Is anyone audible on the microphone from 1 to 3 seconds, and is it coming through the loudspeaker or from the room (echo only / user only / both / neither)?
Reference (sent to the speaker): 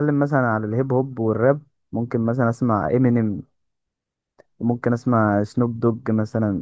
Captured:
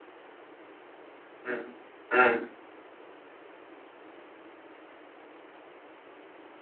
user only